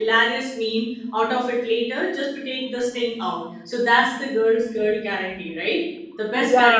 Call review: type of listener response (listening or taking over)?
taking over